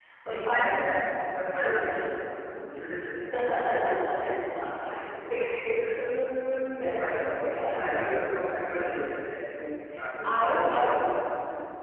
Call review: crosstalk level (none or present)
present